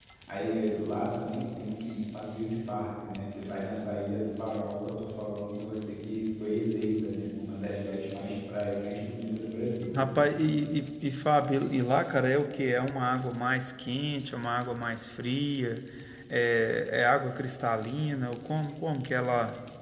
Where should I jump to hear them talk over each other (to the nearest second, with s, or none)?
none